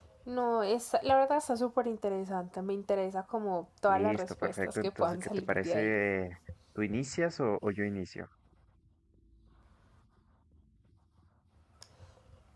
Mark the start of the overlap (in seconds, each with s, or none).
3.9 s